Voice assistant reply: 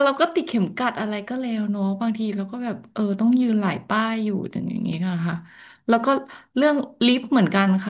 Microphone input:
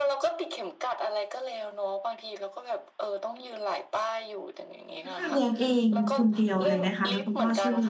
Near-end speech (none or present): present